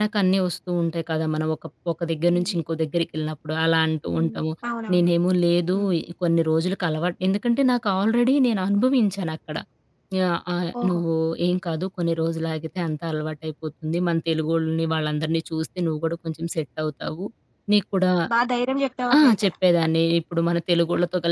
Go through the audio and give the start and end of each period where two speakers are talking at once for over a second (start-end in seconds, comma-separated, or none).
none